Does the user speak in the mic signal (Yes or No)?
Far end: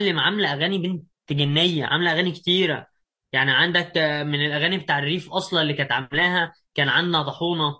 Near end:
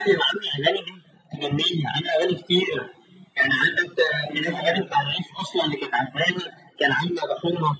Yes